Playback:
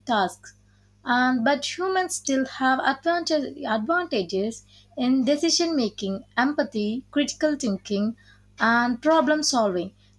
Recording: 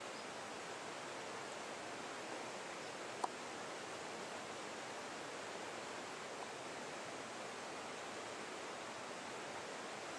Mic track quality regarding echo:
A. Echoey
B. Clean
B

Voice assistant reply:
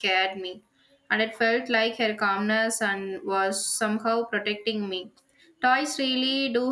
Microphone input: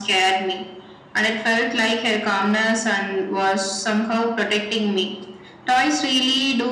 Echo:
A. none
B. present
B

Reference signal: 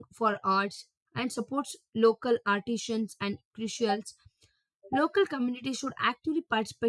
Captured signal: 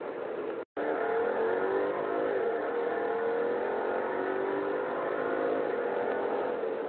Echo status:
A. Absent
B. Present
A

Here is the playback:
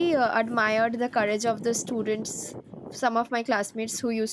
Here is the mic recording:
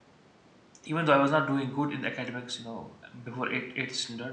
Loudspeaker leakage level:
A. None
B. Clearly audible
A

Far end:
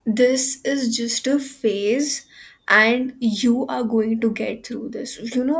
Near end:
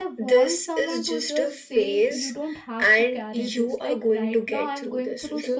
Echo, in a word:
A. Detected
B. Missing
A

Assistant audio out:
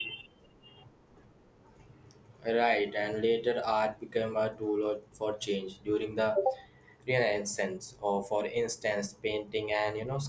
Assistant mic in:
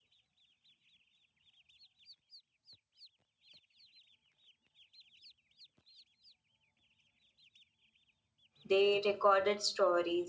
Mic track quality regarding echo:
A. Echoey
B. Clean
B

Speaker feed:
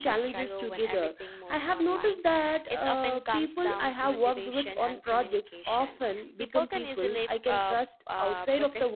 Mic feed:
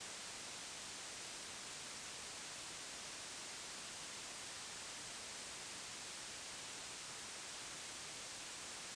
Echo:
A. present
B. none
B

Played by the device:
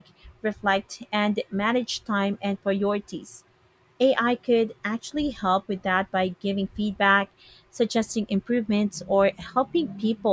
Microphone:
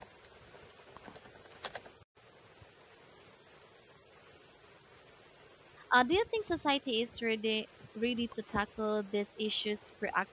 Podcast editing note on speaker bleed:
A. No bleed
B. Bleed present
A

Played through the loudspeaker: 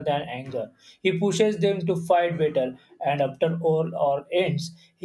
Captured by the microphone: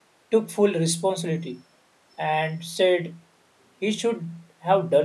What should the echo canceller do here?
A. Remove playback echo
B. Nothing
B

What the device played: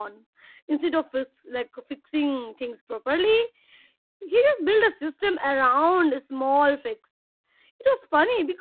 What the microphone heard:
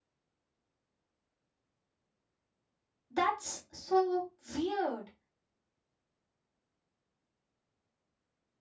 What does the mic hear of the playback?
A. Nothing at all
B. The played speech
A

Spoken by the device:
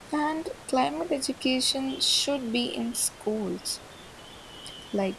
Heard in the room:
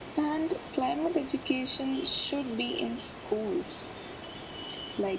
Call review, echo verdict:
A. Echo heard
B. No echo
A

